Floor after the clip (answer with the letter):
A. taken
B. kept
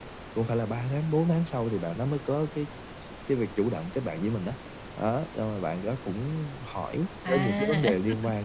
B